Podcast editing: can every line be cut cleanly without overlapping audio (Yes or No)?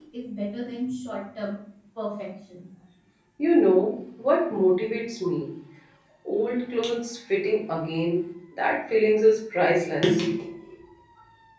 Yes